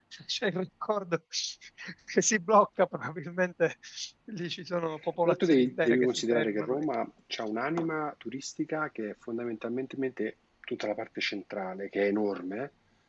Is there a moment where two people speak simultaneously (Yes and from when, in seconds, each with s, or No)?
Yes, from 5.2 s